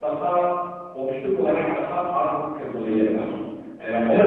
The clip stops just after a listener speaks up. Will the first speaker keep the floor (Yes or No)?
No